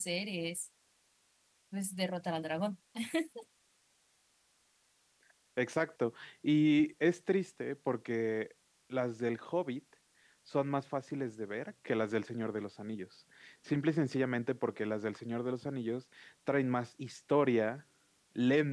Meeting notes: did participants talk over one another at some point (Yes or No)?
No